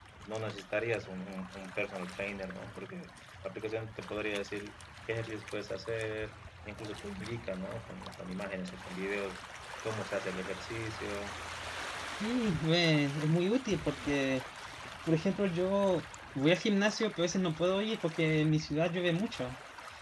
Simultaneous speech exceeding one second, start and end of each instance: none

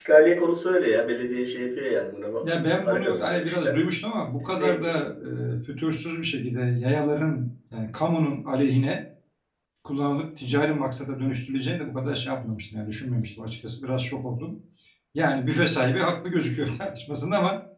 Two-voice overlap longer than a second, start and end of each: 2.4-3.8

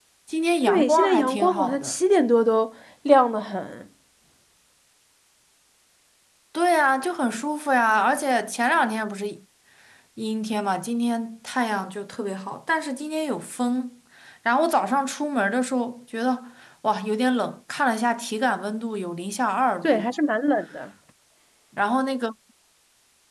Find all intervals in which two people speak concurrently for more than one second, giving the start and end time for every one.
0.7-1.9

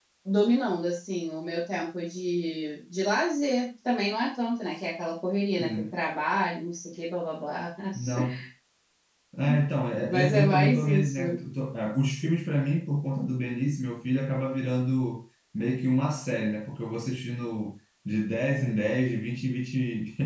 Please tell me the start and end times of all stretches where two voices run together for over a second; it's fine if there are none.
10.1-11.3

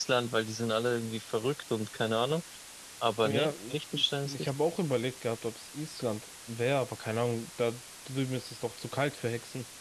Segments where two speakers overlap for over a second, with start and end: 3.2-4.5

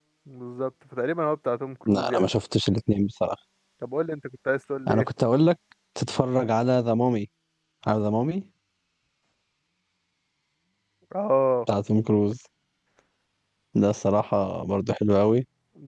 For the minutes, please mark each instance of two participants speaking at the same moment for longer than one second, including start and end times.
none

